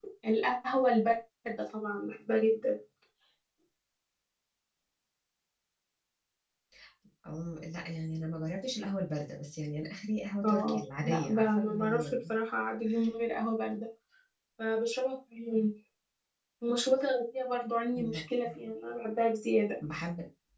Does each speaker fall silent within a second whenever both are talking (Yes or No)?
No